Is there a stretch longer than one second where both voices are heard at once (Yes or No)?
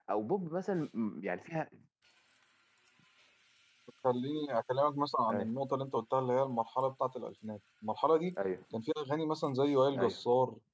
No